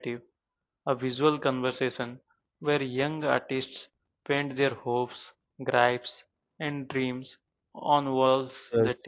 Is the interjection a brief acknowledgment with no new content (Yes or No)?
Yes